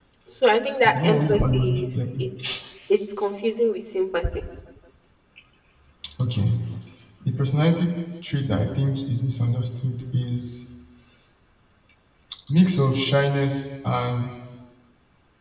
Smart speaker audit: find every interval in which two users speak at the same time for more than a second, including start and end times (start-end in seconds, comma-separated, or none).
0.8-2.2